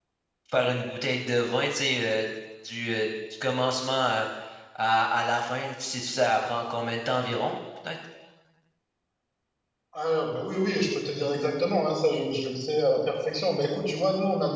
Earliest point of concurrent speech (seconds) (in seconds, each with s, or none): none